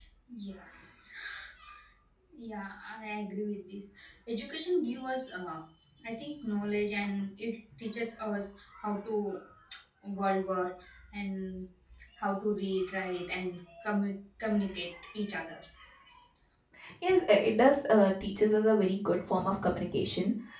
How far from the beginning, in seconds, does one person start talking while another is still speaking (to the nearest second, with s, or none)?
none